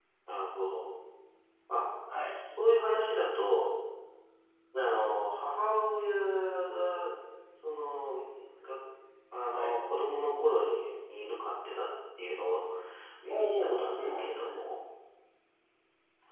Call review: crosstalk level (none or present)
present